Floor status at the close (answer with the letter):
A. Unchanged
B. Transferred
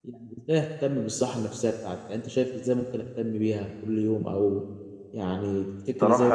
B